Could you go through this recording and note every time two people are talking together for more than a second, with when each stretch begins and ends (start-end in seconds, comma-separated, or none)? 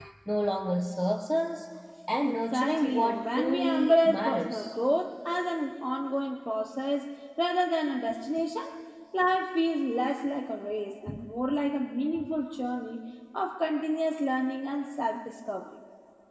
2.2-4.7